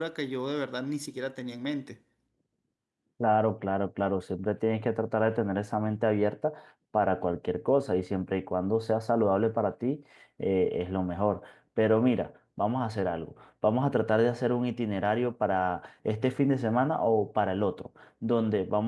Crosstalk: none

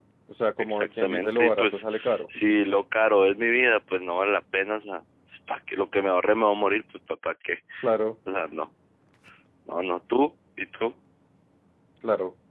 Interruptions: present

